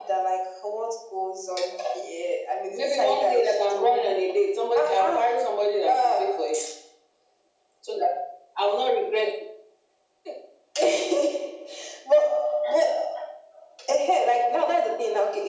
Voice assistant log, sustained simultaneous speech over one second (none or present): present